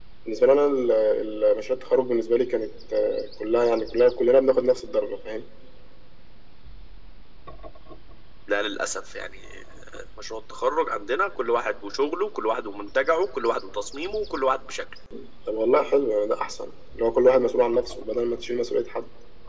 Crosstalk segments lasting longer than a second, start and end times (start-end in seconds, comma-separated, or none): none